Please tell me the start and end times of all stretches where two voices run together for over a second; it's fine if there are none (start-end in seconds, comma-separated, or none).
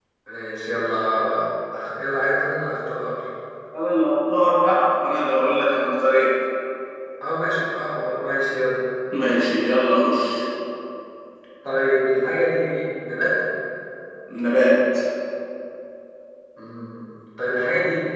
none